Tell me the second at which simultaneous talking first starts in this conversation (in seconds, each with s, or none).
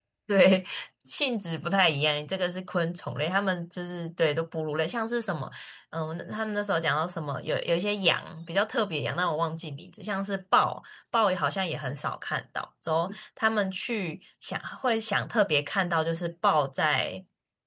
none